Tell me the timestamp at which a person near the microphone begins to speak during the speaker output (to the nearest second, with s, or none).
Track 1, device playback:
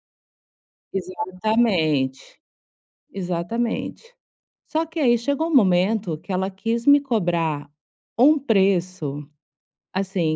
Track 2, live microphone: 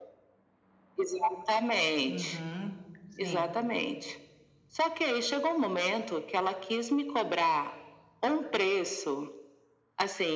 2 s